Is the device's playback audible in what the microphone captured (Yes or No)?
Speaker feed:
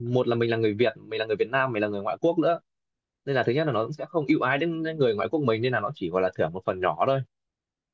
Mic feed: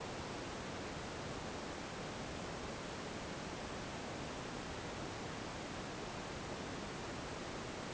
No